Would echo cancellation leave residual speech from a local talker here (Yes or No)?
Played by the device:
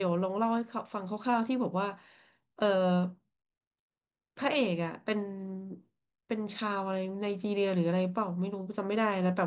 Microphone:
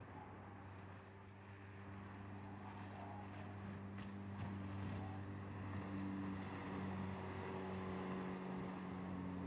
No